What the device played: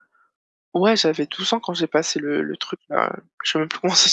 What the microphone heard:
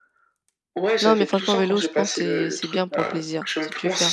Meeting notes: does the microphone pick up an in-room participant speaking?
Yes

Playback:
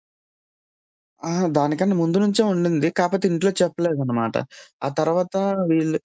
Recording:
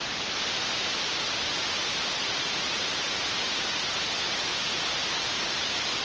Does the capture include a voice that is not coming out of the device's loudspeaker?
No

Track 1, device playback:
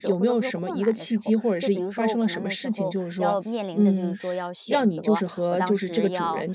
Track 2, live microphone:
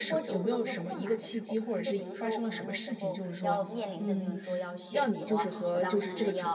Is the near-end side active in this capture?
No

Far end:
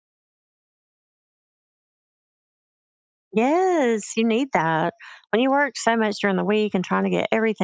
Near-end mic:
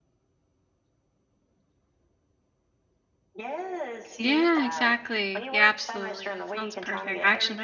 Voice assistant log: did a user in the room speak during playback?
Yes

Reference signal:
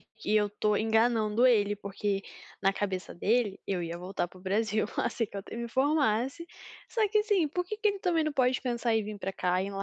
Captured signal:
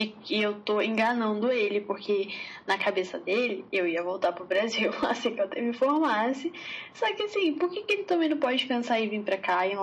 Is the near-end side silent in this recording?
Yes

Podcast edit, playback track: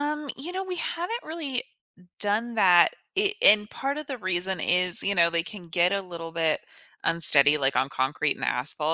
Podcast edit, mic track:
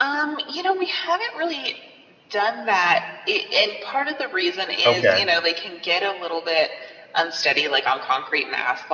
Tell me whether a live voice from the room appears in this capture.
Yes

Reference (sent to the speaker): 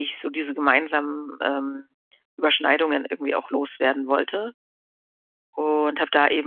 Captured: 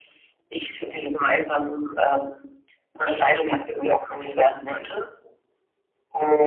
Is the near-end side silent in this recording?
Yes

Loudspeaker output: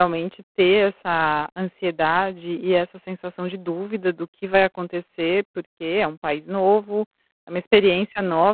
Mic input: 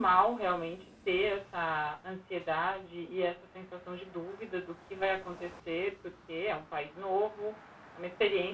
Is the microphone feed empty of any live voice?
Yes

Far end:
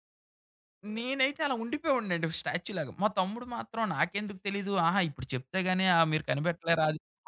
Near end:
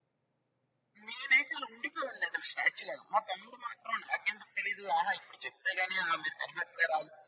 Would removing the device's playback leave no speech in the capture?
Yes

